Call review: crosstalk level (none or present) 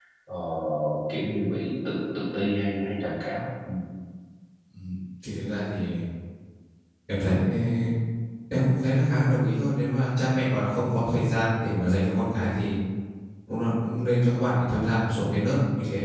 none